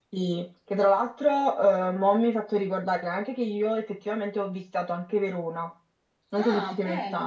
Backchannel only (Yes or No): No